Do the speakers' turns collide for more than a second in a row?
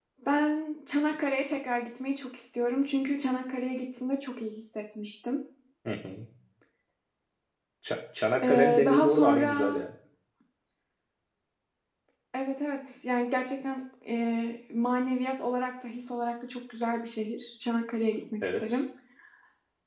Yes, from 8.4 s

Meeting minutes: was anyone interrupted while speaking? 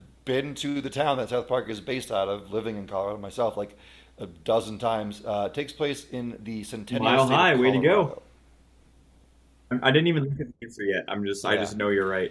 Yes, from 6.9 s

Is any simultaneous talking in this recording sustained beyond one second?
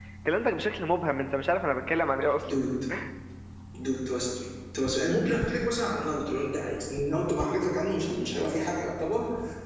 No

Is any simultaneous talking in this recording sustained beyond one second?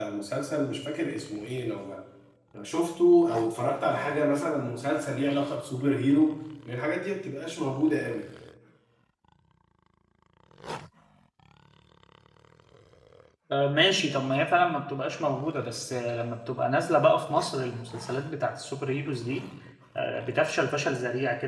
No

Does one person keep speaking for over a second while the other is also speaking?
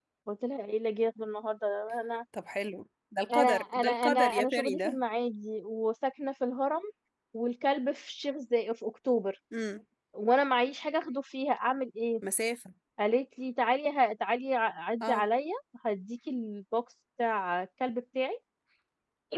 Yes, from 3.3 s

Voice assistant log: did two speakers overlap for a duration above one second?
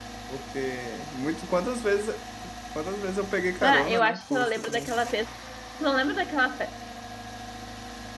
Yes, from 3.6 s

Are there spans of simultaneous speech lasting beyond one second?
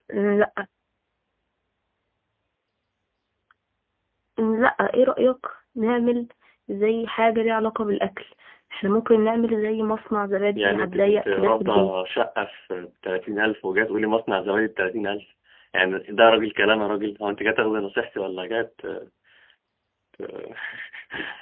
Yes, from 10.6 s

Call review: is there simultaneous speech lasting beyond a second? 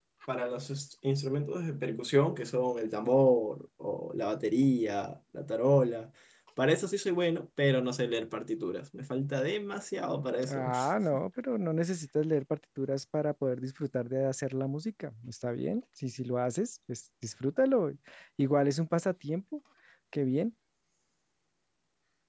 No

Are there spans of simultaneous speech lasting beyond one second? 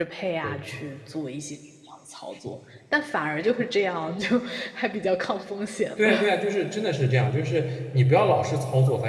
No

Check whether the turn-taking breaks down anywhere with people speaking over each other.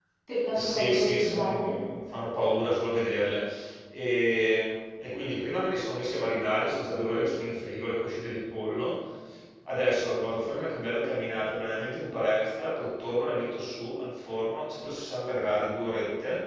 Yes, from 0.5 s

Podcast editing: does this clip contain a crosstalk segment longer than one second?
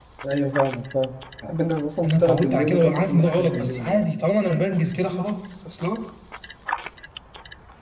Yes, from 2.0 s

